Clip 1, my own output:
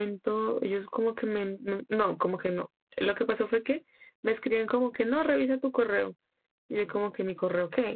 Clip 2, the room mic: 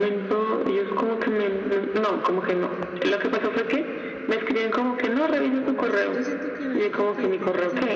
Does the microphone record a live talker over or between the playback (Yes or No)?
Yes